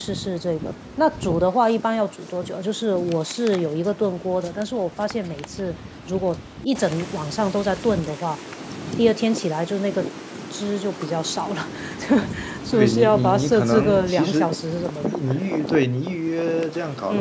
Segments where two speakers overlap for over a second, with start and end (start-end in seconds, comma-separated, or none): 12.7-14.5